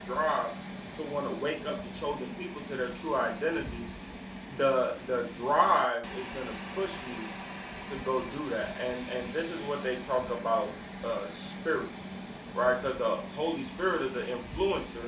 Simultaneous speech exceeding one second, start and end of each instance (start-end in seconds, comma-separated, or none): none